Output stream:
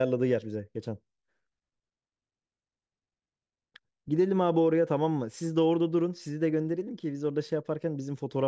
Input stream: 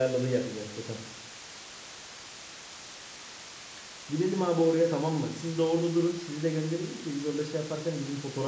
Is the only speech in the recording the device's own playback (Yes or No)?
Yes